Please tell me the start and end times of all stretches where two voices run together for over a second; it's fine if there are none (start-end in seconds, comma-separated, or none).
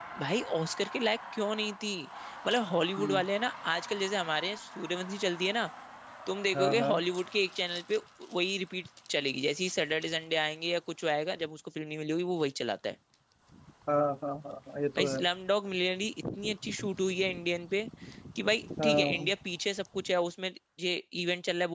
none